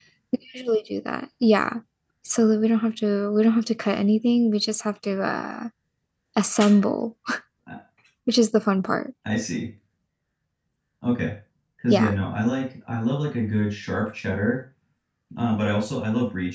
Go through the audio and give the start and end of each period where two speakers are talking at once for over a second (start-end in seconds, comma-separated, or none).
none